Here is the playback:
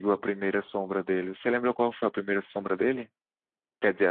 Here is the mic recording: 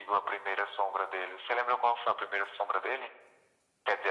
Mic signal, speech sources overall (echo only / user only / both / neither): echo only